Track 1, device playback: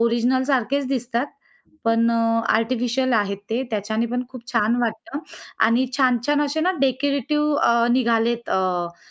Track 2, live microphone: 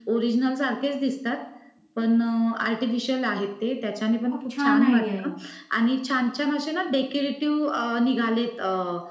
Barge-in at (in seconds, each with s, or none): 4.3 s